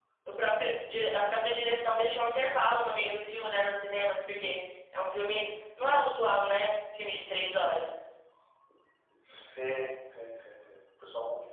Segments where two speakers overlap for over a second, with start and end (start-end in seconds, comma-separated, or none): none